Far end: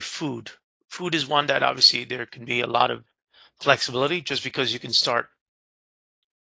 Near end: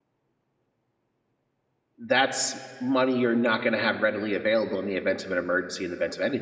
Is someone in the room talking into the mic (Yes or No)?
Yes